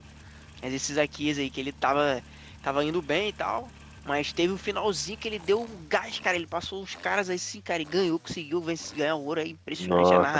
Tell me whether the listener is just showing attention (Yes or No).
No